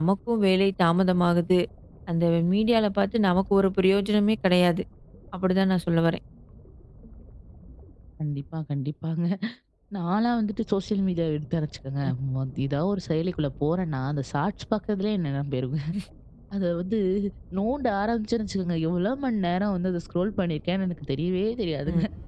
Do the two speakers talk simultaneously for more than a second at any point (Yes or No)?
No